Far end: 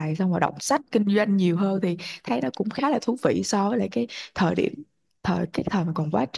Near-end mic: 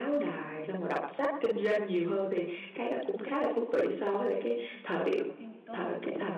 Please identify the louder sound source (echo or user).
echo